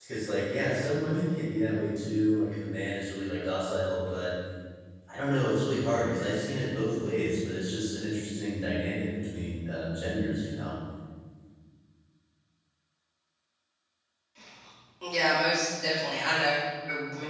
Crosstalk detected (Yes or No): No